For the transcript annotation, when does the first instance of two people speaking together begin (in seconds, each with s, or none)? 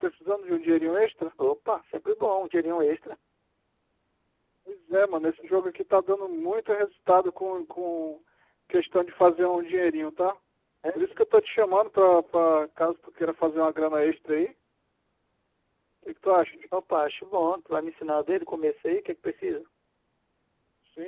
none